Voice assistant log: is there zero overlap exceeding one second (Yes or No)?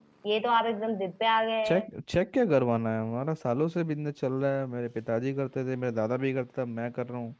Yes